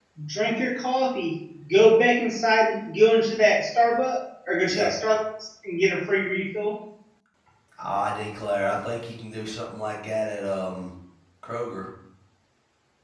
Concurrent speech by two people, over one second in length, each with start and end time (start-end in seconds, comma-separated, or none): none